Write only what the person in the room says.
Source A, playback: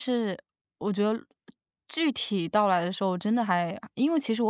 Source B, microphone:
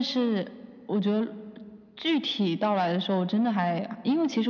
none

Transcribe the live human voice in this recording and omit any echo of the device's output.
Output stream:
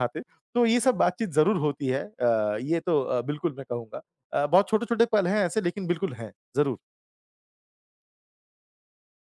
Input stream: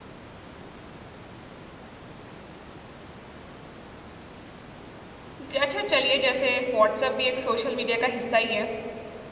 ज अच्छा चलिए जैसे व्हाट्सएप भी एक सोशल मीडिया का हिस्सा ही है,

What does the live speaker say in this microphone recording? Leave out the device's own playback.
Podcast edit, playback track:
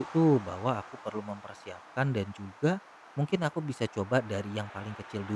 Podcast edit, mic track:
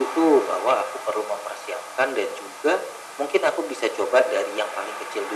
none

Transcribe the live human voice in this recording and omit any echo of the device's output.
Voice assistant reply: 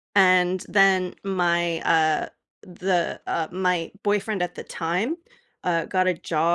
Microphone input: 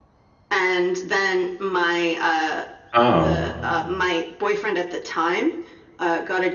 Oh.

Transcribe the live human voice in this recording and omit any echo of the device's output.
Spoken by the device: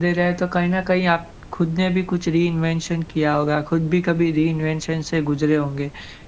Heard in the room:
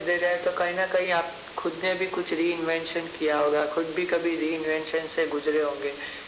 none

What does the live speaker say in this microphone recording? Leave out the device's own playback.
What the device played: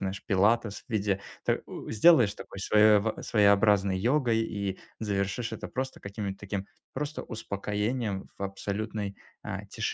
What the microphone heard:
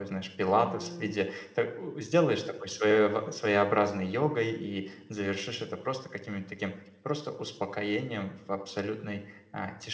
Мгм.

